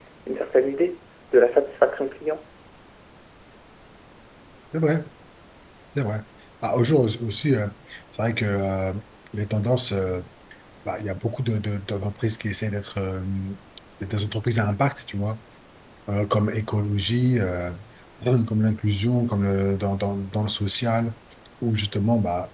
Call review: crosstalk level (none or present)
none